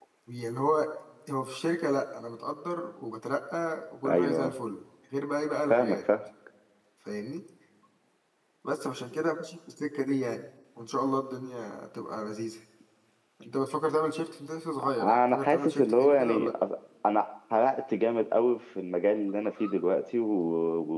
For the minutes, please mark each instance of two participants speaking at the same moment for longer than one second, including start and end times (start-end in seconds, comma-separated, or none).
15.0-16.5